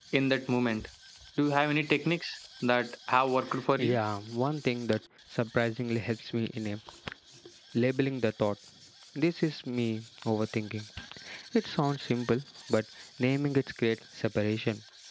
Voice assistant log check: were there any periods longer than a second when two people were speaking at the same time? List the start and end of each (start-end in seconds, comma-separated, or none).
none